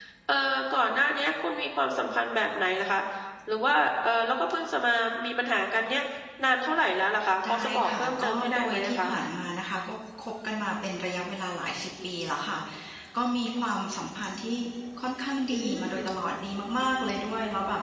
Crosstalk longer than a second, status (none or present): present